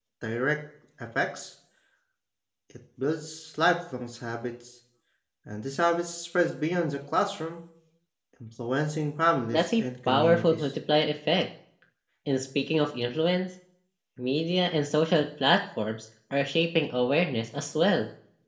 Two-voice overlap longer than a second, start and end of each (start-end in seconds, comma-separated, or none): 9.5-10.7